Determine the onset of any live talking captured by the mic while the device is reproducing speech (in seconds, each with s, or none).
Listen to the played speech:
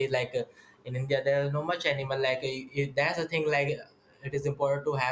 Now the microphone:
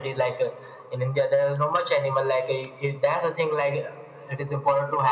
none